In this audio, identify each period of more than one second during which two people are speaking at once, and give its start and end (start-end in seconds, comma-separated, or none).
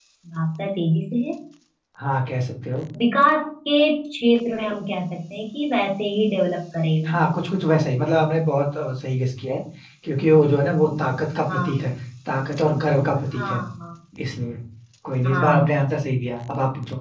none